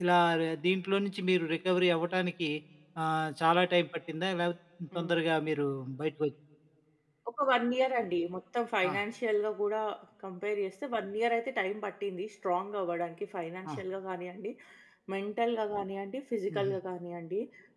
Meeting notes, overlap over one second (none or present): none